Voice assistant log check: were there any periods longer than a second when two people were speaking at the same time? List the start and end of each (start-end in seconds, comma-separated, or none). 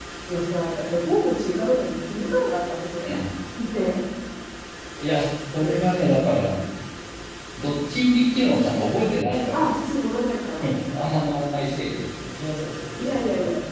none